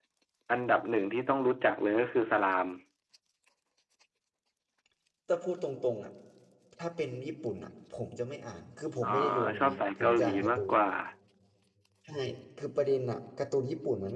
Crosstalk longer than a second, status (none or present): present